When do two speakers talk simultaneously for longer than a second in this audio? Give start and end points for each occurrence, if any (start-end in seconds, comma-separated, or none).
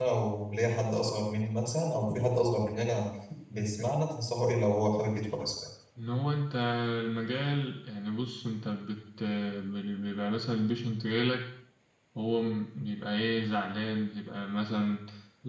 none